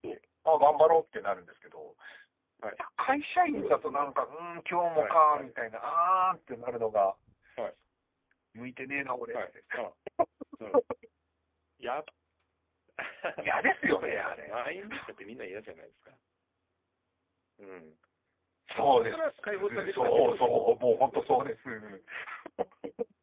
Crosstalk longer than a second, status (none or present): present